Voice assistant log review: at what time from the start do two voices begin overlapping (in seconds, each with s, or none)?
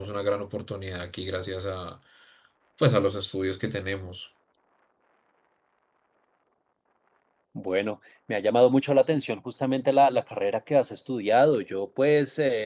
none